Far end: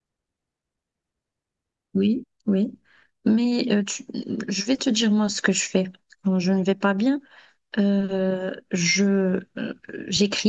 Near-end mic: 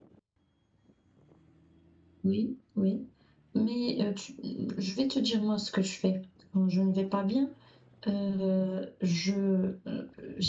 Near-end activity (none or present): none